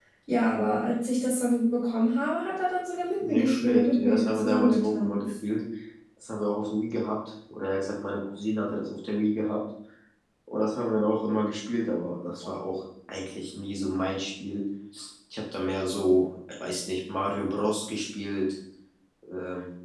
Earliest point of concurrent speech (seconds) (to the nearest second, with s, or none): 3 s